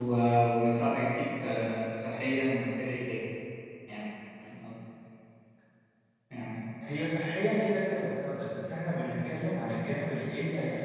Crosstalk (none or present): none